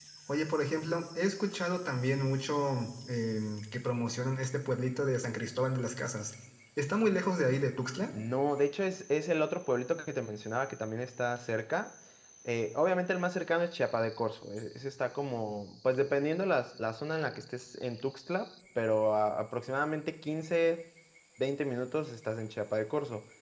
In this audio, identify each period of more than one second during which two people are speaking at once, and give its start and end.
none

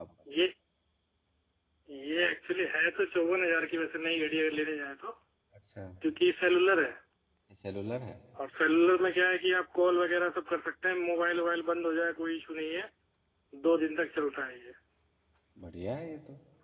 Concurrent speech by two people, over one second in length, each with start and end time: none

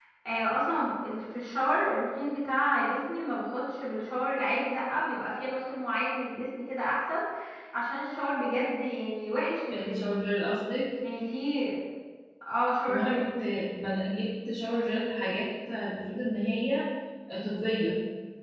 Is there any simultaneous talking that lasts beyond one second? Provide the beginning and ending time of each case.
none

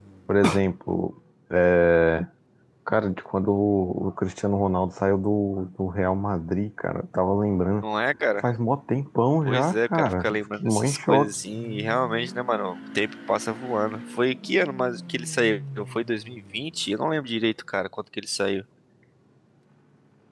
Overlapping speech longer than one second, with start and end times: 9.5-11.3

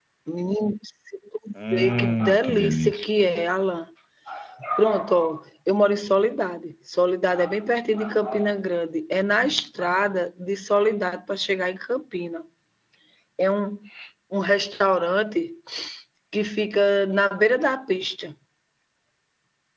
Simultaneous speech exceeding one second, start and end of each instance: 1.7-3.0

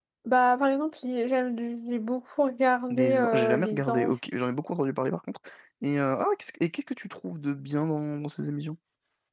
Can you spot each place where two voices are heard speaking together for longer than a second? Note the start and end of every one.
2.9-4.1

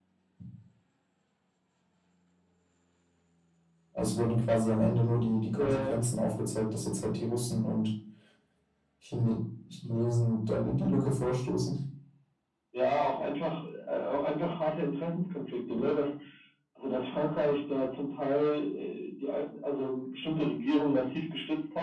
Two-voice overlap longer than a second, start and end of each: none

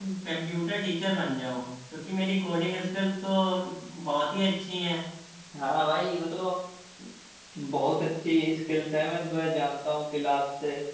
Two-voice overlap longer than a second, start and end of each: none

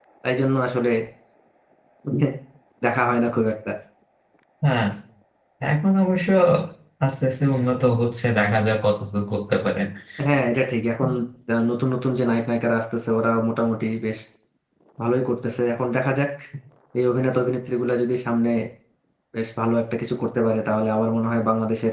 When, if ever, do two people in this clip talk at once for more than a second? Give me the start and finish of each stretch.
none

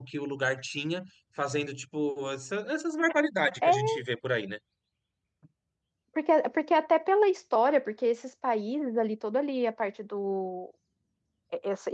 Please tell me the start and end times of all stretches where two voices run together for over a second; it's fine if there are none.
none

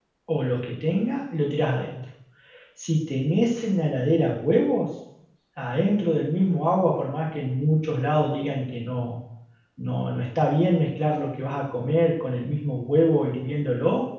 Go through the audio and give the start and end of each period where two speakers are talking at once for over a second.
none

